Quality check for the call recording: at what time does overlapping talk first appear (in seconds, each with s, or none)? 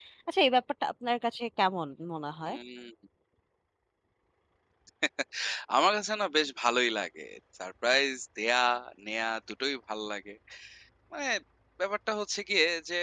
none